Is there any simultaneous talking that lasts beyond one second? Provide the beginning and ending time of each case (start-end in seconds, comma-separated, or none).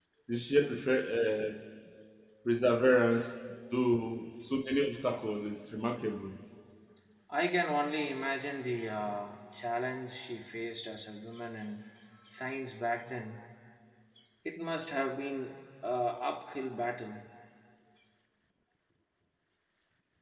none